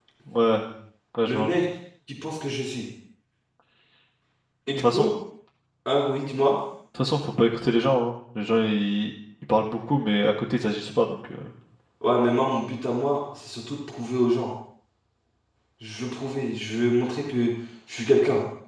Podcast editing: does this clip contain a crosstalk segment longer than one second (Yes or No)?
No